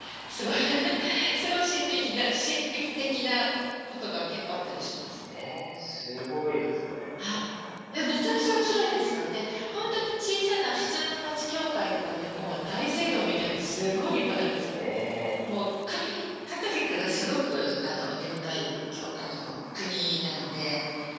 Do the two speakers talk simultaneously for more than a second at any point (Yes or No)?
No